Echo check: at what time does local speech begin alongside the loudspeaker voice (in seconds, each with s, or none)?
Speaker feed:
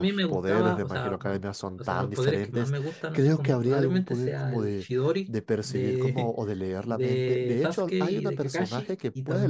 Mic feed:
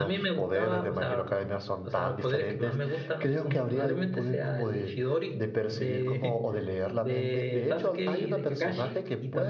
none